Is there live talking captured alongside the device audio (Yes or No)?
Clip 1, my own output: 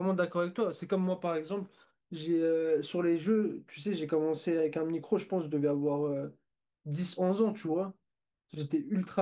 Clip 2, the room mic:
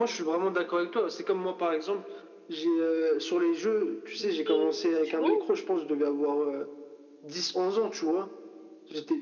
Yes